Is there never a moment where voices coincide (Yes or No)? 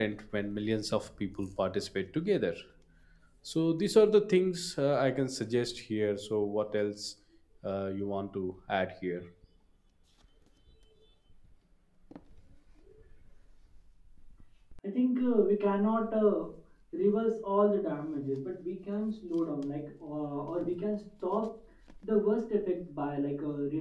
Yes